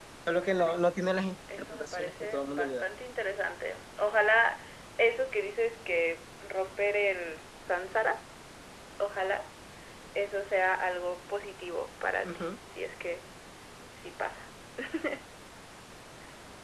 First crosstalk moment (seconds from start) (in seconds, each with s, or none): 1.6 s